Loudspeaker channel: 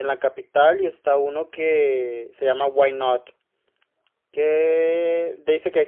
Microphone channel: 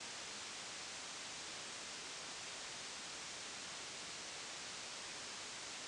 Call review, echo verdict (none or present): none